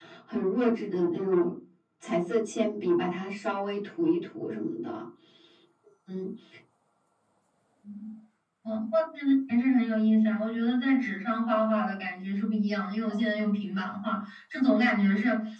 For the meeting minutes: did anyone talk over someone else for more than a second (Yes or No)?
No